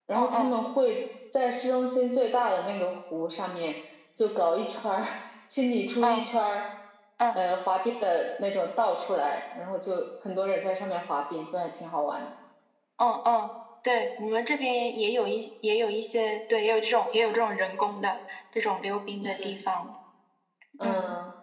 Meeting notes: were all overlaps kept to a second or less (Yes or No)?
Yes